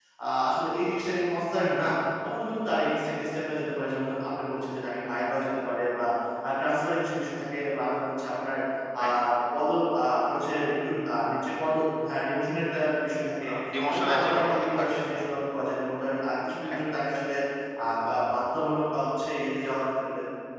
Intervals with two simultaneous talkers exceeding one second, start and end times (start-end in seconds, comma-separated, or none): 13.9-15.3